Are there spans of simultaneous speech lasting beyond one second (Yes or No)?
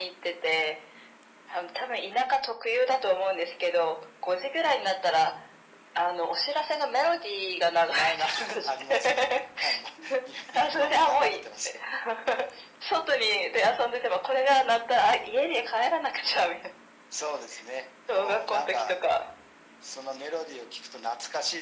Yes